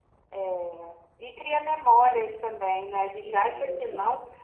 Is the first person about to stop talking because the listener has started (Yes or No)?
No